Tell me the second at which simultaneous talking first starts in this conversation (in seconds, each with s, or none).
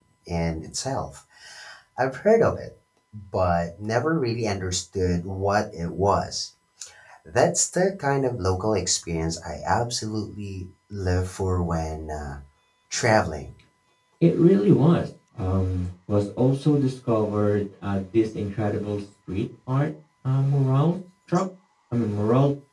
none